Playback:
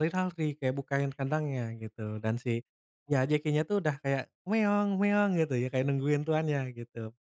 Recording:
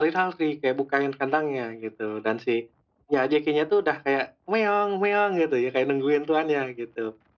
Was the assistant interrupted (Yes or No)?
No